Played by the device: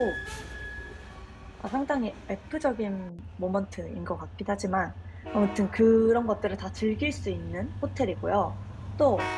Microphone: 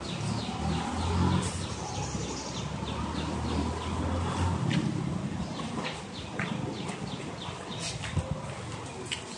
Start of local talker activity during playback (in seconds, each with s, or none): none